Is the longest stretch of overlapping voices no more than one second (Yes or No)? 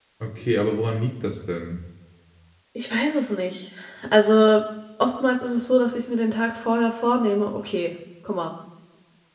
Yes